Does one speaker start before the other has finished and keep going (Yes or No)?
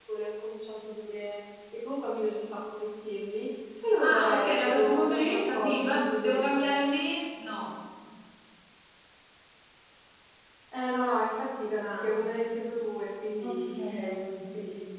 Yes